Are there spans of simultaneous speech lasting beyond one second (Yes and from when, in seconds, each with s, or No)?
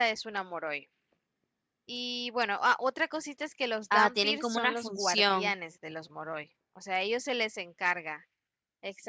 Yes, from 3.9 s